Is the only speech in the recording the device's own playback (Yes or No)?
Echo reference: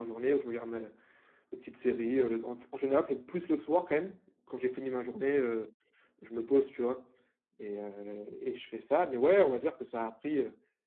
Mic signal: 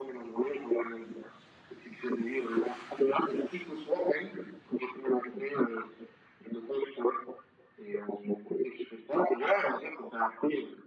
Yes